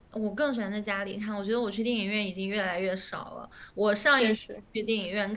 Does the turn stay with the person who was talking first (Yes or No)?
Yes